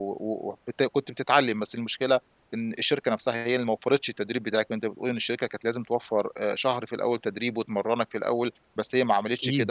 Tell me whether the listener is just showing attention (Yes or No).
Yes